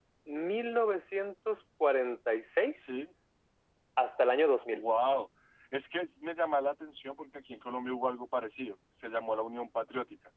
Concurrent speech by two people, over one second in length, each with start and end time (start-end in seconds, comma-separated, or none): none